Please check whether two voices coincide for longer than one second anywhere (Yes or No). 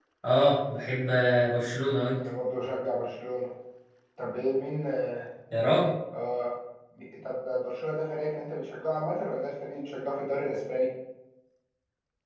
No